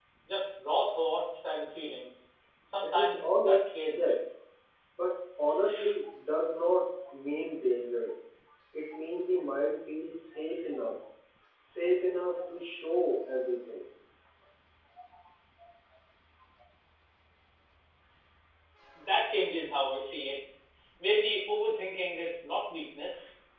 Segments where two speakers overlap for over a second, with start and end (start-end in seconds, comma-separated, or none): 2.8-4.2